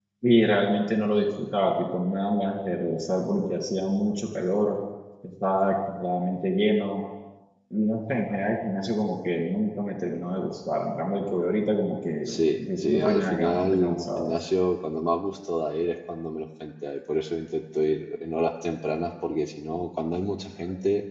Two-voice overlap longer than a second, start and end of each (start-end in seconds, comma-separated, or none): 12.3-14.3